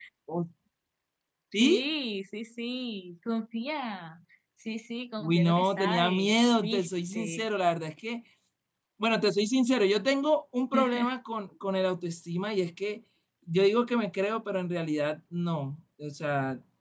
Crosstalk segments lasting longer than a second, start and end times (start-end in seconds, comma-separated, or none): 5.2-7.5